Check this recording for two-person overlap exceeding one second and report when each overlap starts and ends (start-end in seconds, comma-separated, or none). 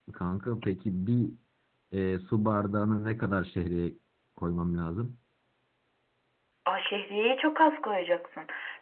none